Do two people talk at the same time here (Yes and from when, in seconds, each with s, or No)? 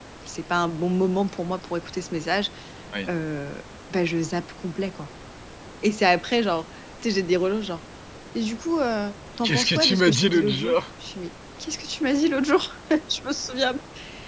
Yes, from 9.4 s